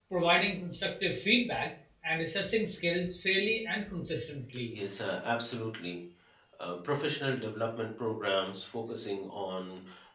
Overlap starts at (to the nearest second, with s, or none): none